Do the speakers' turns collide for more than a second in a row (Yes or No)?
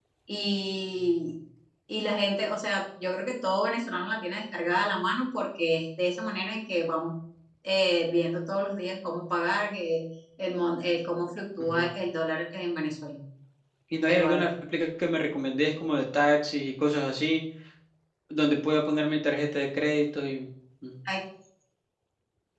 No